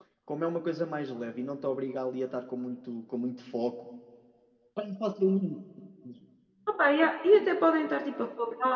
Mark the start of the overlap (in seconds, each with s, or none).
none